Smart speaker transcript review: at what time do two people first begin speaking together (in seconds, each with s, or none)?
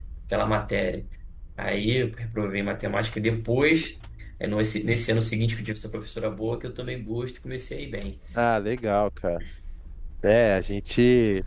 none